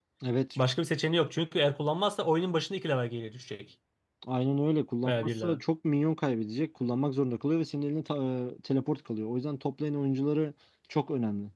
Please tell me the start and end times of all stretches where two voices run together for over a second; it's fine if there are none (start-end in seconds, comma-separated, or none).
none